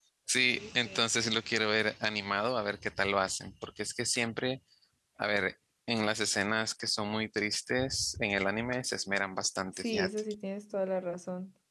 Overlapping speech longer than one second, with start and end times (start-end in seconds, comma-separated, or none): none